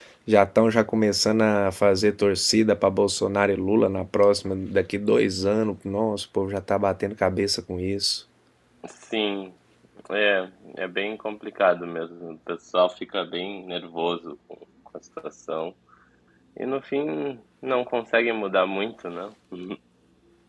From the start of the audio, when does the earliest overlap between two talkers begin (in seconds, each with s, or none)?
none